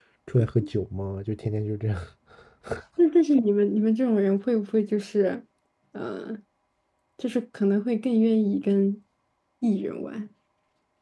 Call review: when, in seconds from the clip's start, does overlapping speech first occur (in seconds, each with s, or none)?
none